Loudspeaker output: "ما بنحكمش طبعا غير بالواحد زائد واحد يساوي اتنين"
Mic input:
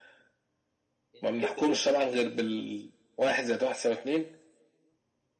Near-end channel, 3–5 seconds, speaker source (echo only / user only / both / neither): echo only